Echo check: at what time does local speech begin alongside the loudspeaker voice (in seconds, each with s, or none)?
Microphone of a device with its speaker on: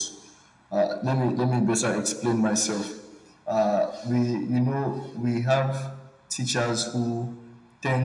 none